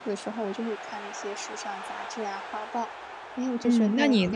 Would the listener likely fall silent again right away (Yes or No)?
No